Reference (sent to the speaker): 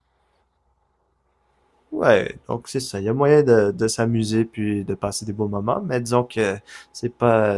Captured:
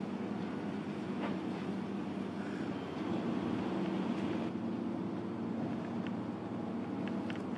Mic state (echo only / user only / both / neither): neither